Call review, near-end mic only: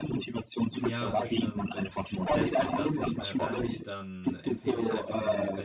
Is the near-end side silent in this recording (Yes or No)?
No